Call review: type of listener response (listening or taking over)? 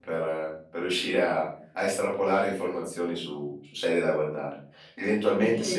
listening